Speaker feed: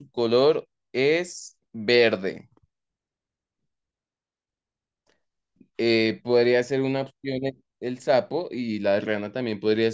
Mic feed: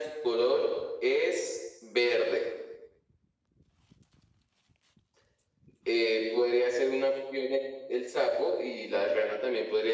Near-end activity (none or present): none